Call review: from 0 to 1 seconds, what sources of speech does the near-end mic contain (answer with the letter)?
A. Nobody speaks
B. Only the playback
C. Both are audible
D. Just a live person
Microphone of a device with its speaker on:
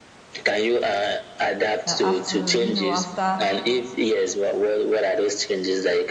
B